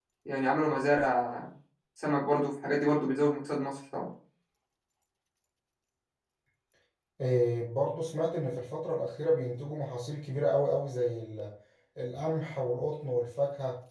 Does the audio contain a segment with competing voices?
No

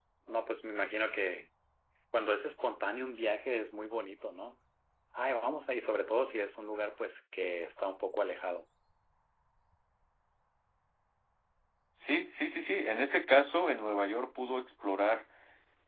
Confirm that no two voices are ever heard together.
Yes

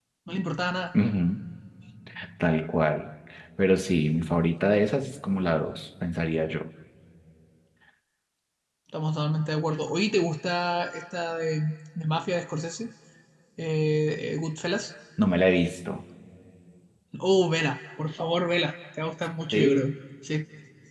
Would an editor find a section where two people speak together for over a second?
No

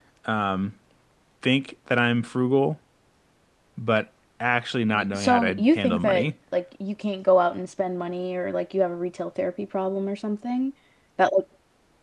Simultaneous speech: Yes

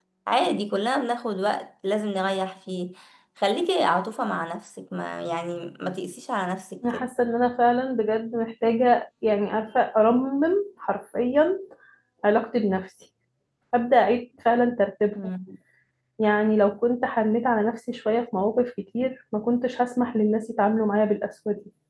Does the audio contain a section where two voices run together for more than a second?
No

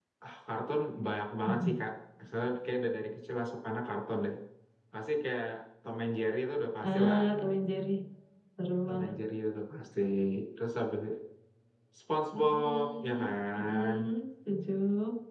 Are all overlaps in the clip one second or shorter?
No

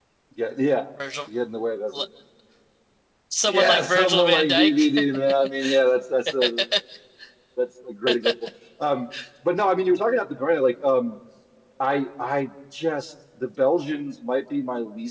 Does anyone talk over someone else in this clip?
Yes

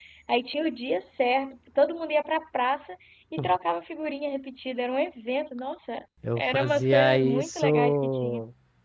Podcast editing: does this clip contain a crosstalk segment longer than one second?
Yes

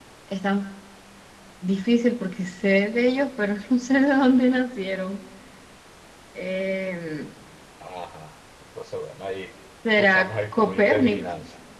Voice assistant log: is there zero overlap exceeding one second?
No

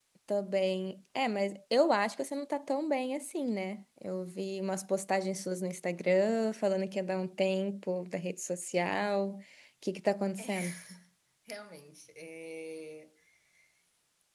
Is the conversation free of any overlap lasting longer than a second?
Yes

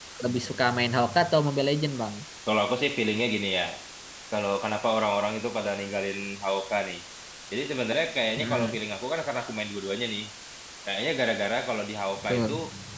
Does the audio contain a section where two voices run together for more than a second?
No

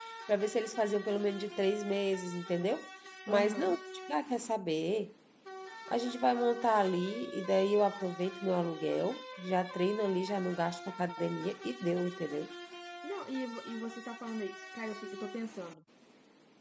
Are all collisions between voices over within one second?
Yes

